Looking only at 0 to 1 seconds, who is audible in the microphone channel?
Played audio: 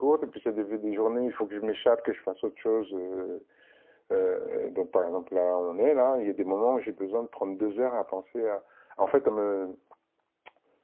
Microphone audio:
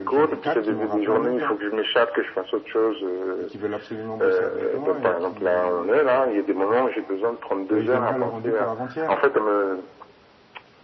both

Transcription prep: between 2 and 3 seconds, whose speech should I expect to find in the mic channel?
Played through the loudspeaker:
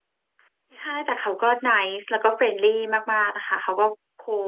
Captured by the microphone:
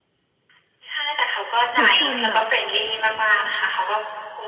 both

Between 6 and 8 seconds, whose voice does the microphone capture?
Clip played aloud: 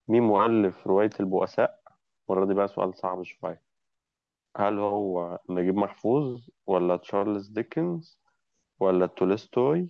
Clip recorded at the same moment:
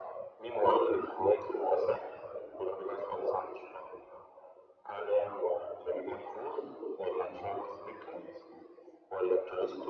echo only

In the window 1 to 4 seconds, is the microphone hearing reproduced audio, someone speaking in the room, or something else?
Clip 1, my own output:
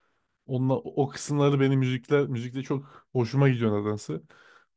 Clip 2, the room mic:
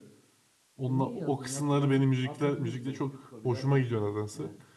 both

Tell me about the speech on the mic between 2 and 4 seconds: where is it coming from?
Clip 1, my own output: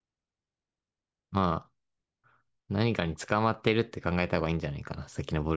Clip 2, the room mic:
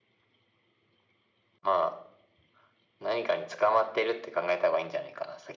echo only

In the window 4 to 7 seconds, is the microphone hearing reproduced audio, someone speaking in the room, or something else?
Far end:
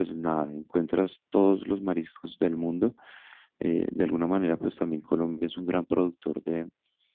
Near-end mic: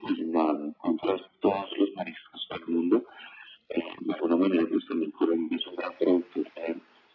echo only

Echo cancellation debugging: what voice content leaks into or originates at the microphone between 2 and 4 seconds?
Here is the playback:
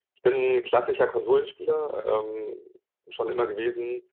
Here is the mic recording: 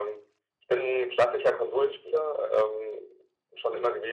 echo only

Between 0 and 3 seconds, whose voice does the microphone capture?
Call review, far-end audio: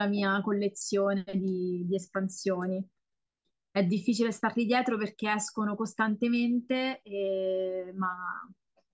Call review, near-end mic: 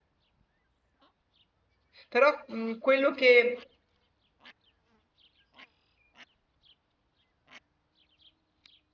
user only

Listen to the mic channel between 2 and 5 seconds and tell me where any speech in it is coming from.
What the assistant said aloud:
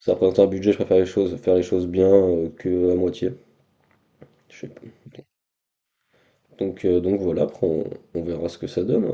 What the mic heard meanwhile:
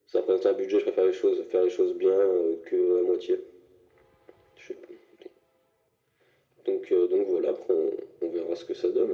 echo only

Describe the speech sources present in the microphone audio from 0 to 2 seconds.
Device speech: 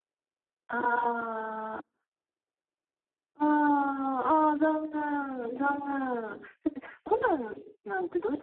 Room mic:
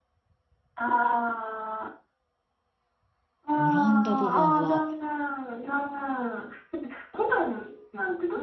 echo only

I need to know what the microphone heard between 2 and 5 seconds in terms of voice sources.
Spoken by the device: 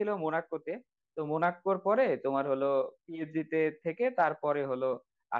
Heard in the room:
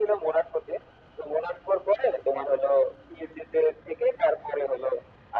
echo only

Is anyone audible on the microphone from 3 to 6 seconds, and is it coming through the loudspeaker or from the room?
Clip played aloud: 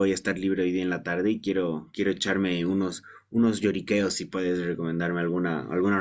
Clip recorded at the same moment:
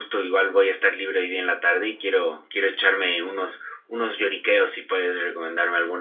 echo only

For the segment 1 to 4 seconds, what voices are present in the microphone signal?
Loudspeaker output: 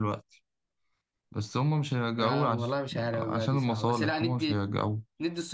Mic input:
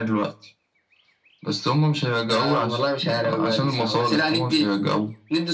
echo only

